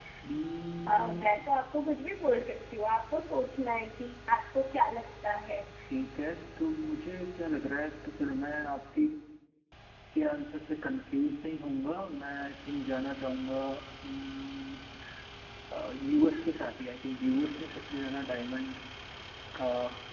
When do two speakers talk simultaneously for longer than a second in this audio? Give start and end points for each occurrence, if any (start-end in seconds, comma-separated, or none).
none